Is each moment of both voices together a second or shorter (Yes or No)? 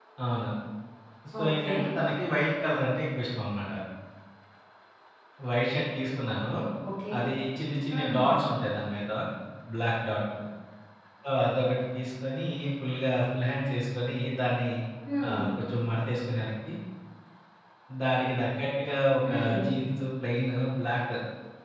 Yes